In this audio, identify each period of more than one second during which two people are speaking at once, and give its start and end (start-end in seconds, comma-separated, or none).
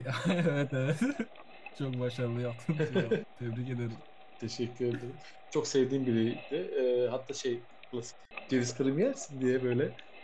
none